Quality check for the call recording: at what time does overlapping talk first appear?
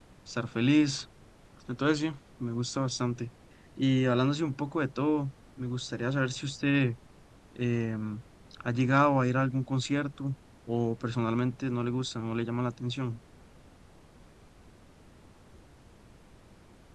none

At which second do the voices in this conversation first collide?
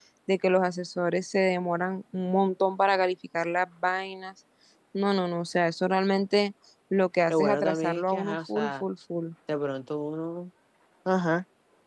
7.3 s

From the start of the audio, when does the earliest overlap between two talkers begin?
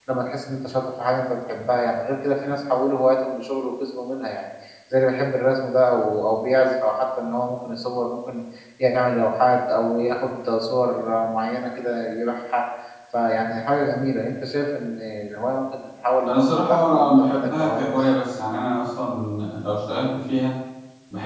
16.2 s

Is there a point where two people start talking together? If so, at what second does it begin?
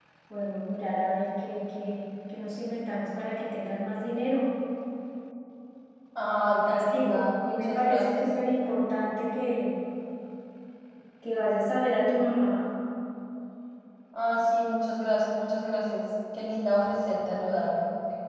6.8 s

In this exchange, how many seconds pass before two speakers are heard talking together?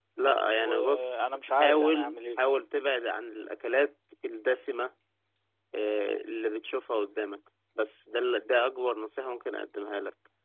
0.6 s

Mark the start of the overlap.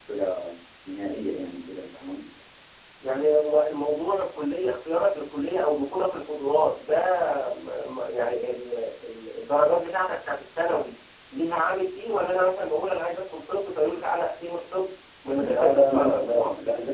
15.2 s

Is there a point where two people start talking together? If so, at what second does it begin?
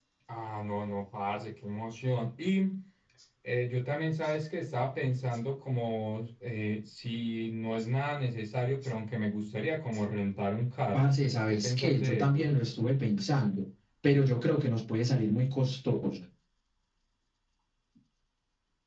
10.9 s

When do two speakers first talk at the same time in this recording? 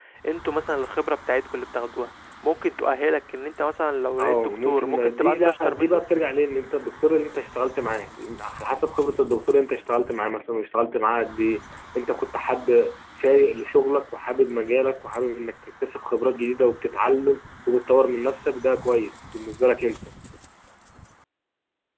4.2 s

